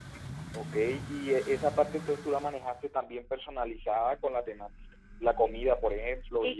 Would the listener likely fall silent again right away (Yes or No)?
No